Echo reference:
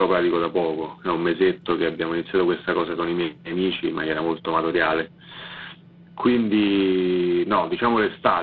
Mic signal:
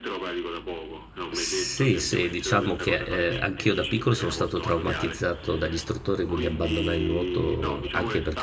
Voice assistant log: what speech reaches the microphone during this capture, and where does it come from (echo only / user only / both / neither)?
both